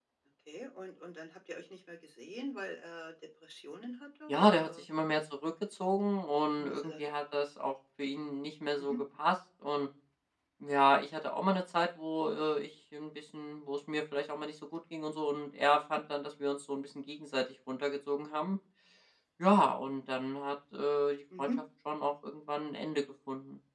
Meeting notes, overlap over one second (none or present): none